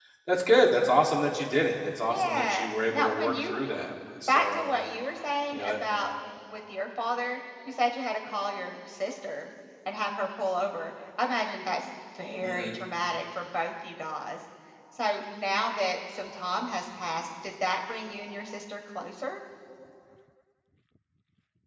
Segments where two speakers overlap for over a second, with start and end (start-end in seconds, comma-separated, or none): 2.1-3.6